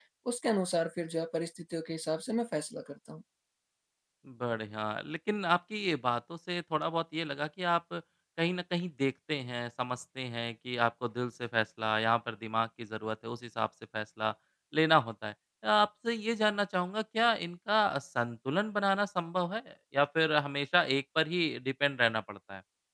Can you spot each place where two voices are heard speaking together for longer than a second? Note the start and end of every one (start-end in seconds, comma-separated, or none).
none